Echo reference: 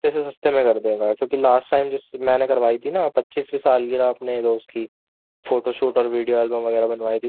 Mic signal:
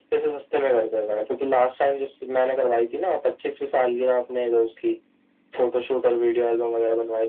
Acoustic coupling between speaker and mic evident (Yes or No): Yes